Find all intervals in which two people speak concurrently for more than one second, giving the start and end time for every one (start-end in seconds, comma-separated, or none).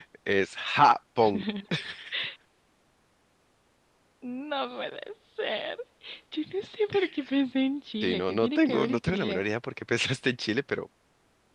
8.0-9.4